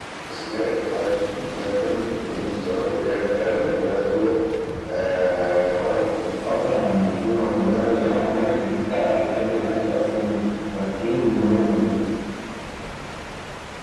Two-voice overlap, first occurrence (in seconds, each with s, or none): 6.3 s